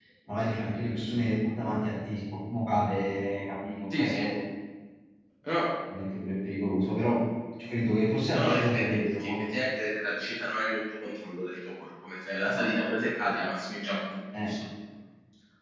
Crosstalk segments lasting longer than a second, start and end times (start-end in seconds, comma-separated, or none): 8.3-9.5